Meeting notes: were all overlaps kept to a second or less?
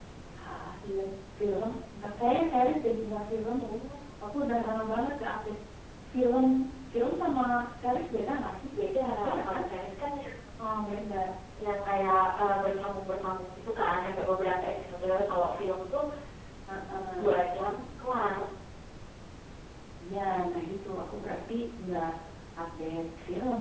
Yes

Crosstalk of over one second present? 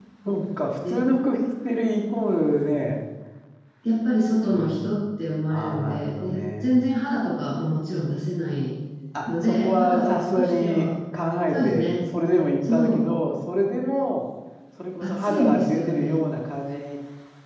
Yes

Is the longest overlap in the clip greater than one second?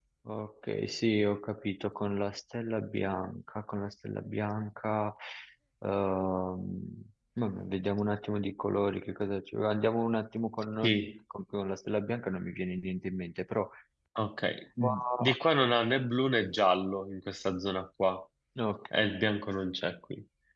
No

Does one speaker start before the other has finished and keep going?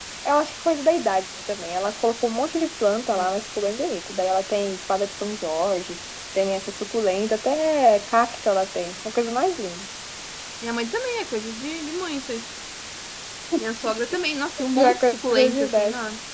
Yes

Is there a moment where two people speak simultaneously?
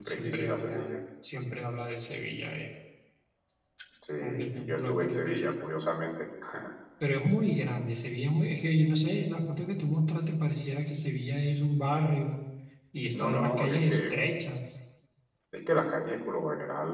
Yes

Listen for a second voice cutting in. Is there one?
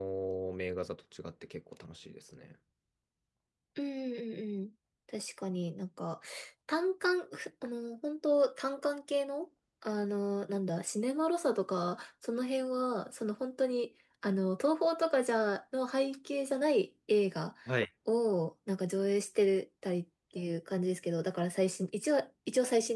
No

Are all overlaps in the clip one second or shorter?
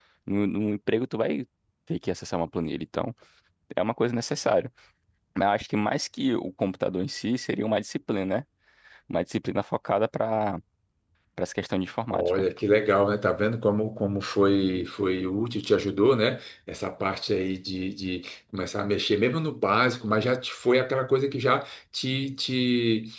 Yes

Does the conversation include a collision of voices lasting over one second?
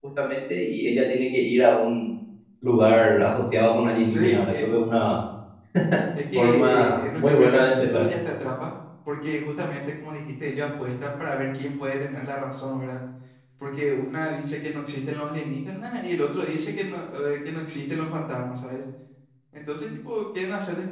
Yes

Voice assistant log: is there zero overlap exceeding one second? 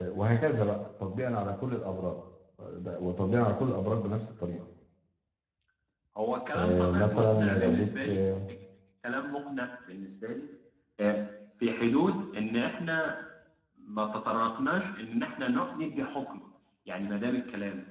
No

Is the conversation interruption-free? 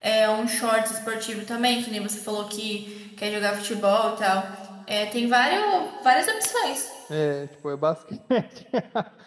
Yes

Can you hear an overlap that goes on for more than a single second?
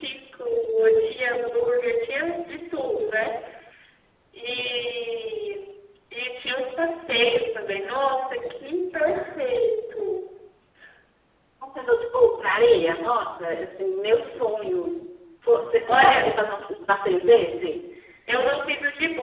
No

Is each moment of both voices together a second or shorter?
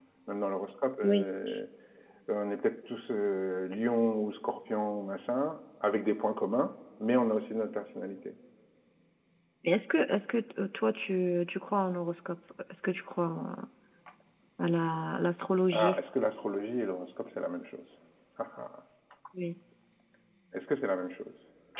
Yes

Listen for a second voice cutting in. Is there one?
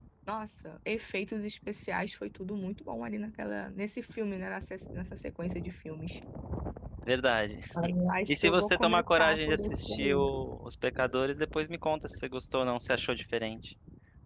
Yes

